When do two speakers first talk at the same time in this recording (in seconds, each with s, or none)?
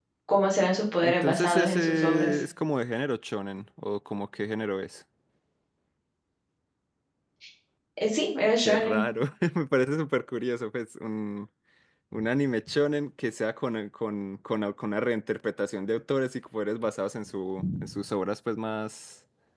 1.0 s